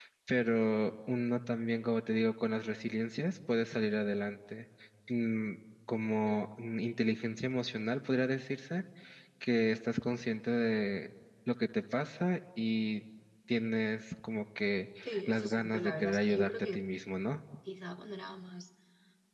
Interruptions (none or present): present